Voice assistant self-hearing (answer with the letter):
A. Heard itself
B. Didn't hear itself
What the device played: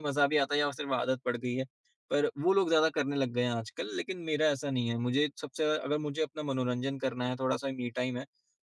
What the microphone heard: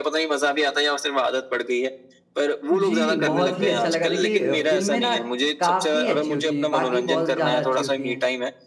A